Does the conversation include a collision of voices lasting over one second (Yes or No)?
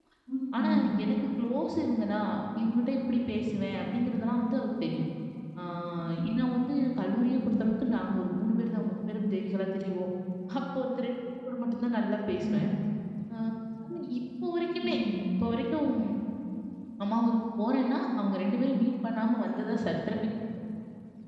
No